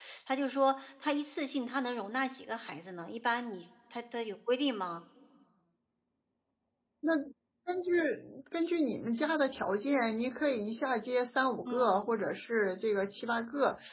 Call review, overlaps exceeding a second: none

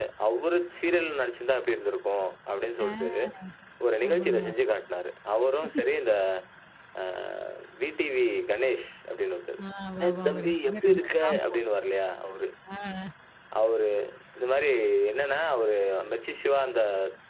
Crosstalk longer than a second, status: present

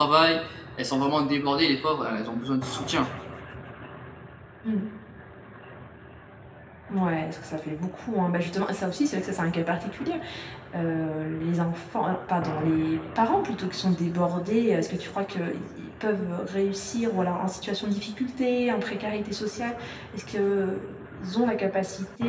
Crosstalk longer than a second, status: none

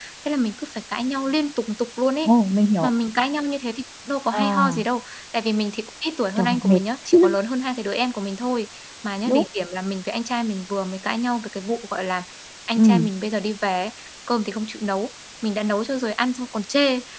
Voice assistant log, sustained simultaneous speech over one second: none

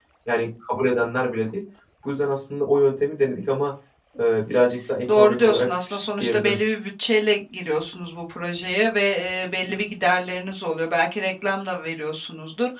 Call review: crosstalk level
present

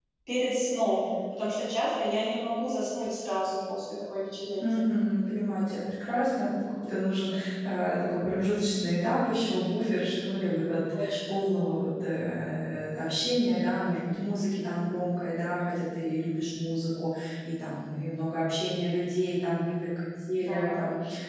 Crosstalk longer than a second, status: none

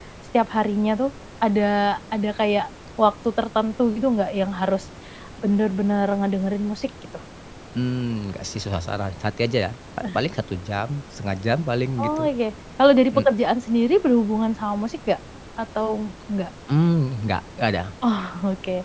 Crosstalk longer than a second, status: none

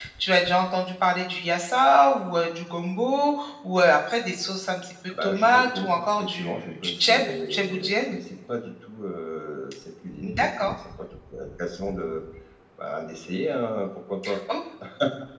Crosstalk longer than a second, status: present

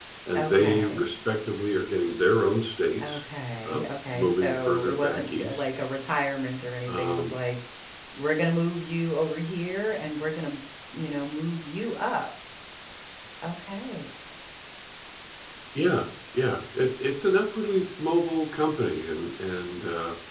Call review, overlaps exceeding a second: present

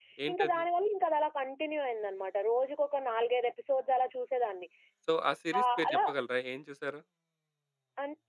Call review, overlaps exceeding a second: none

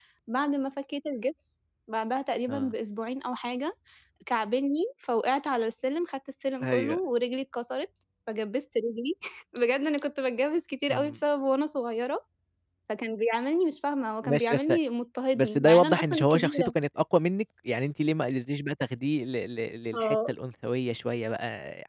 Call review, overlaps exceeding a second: present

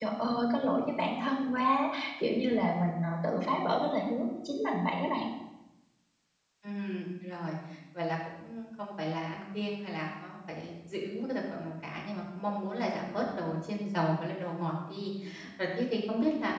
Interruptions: none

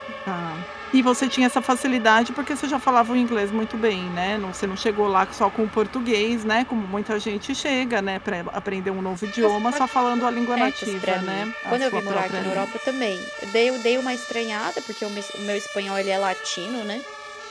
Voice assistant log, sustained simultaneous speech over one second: present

